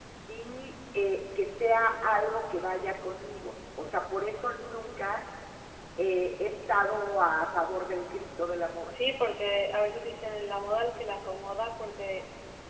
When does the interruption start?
none

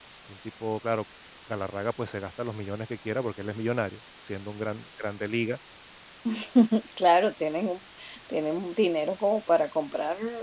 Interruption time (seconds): none

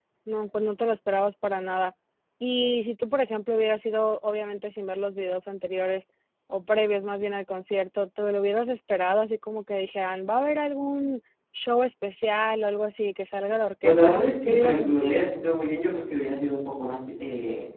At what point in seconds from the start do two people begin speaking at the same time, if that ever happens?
13.8 s

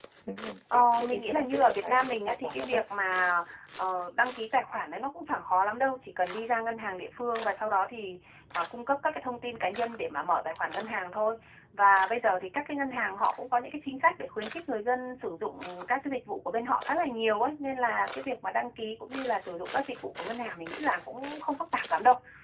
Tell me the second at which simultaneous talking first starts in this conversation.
0.7 s

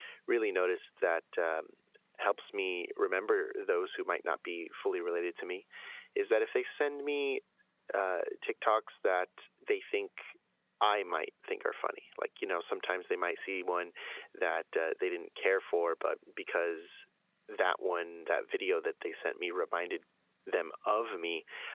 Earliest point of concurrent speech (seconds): none

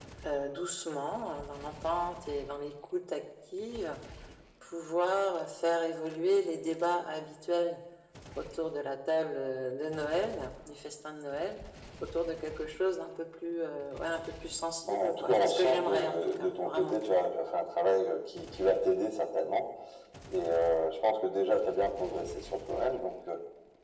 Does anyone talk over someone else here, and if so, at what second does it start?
14.8 s

